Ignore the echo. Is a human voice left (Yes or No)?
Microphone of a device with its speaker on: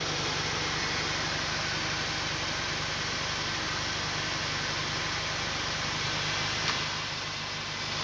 No